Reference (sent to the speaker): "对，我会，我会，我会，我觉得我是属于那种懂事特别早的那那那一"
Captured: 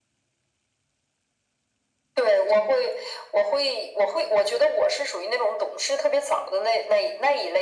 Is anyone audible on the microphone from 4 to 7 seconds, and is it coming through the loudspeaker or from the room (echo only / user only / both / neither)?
echo only